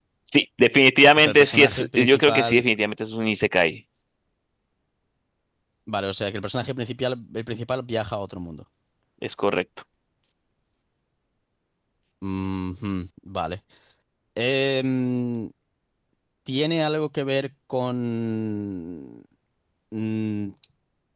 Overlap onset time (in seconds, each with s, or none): 1.2 s